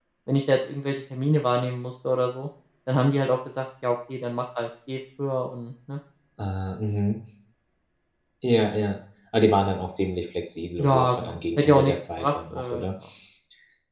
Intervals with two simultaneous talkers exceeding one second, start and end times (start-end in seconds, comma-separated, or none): 10.8-12.8